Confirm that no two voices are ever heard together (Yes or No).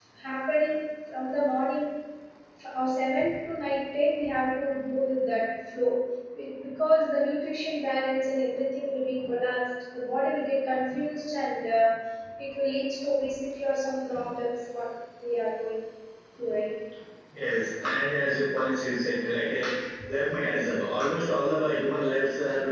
Yes